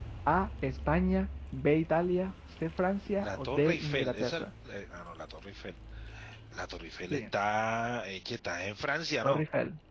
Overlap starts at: 3.2 s

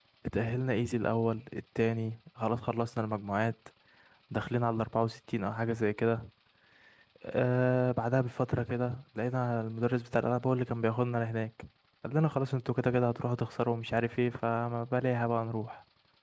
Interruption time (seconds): none

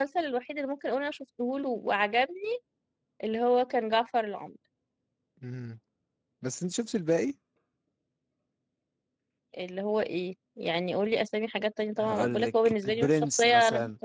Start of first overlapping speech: 12.0 s

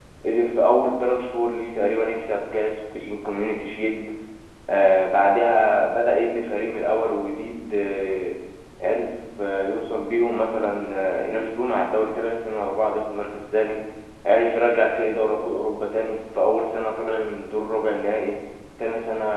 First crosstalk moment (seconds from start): none

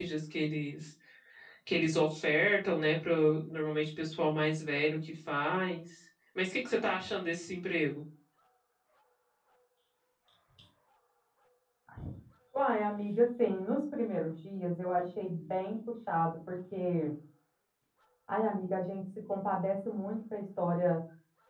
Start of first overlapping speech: none

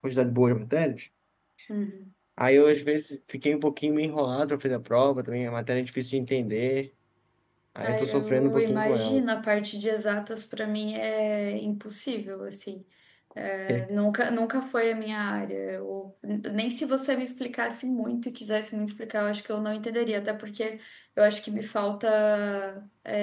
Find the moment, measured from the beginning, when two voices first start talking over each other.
7.8 s

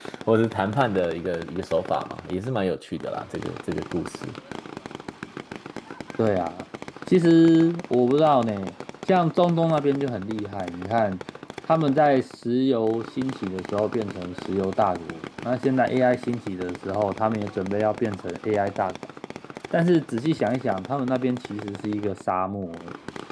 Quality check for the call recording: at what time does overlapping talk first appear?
none

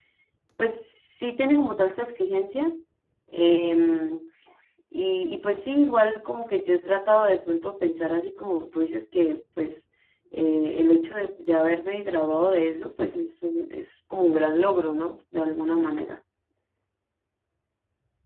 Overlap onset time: none

